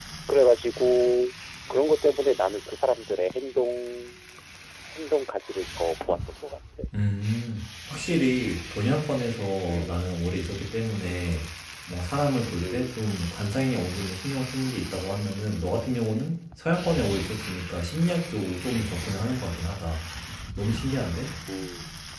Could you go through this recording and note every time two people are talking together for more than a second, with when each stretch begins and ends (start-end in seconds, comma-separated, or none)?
none